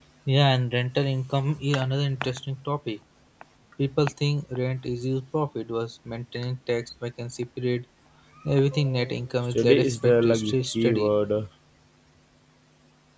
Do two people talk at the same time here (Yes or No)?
Yes